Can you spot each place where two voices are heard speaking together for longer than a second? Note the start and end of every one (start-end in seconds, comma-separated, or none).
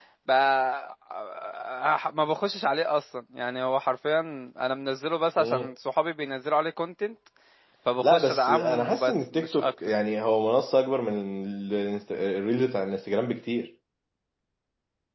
8.0-9.7